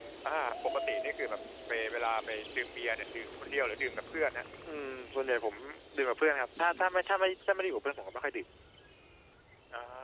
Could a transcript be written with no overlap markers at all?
Yes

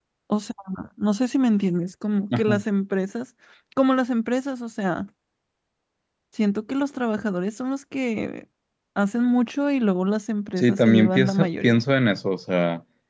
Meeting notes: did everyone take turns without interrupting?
No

